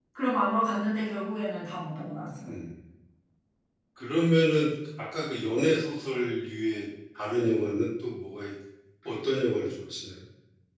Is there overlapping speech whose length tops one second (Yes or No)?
No